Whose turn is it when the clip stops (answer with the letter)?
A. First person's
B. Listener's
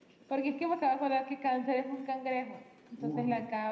B